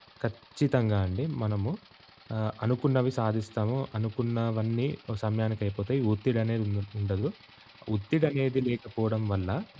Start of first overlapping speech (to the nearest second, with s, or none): none